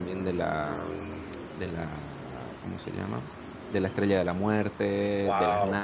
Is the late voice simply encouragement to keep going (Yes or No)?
Yes